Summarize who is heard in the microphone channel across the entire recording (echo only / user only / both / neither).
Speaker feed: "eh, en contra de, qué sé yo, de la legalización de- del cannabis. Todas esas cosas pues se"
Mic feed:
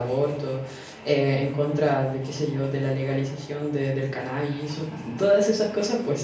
echo only